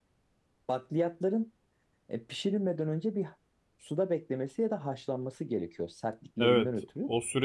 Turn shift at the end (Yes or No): Yes